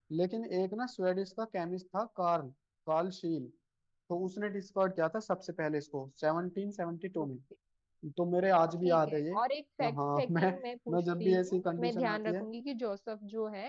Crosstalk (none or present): present